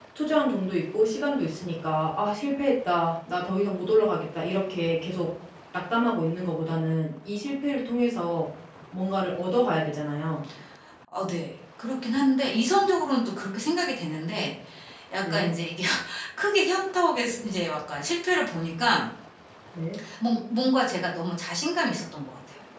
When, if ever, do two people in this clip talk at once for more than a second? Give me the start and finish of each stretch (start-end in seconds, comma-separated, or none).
none